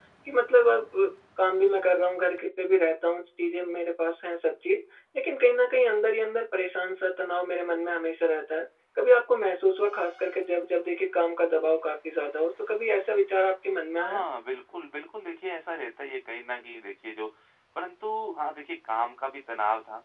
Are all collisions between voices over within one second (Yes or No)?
Yes